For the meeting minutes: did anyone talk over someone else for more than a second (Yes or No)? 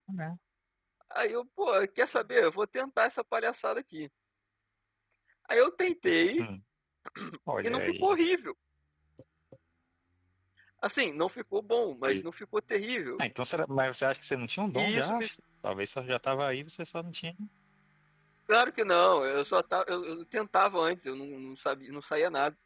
No